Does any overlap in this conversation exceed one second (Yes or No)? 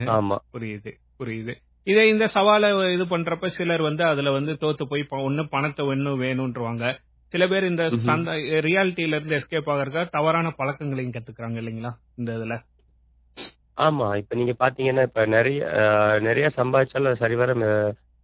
No